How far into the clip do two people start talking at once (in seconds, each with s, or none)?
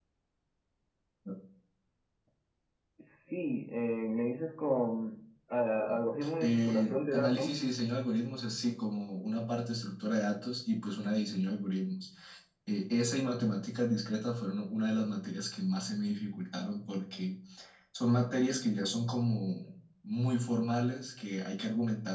6.4 s